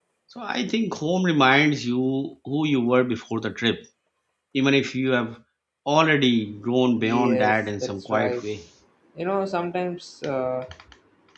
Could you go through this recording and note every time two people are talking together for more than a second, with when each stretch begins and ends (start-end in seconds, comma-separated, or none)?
7.0-8.4